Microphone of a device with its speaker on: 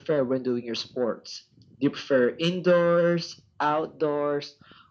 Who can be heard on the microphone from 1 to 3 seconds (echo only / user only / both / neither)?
echo only